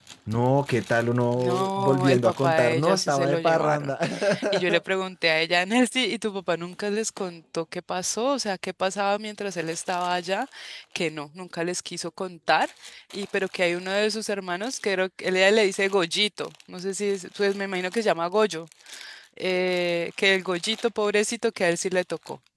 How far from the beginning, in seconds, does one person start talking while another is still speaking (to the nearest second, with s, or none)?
1 s